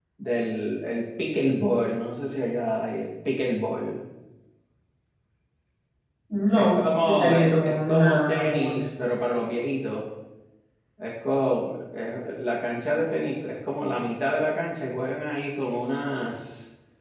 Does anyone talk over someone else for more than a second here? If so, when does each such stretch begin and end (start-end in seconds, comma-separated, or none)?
6.5-8.8